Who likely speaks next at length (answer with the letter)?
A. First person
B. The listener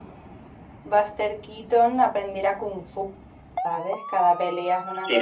B